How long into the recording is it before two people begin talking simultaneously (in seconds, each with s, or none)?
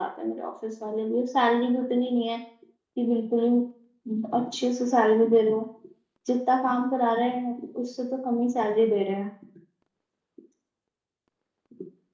none